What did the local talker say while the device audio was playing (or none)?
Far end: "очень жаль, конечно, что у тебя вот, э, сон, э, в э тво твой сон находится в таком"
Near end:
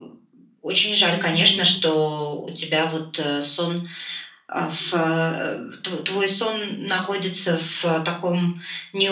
М м.